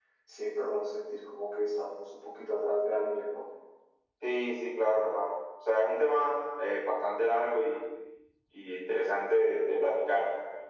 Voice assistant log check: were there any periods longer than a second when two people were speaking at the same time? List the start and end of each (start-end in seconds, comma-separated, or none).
none